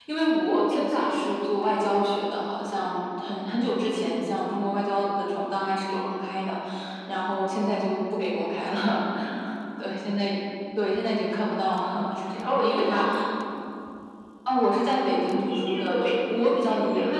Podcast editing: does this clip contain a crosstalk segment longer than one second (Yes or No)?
Yes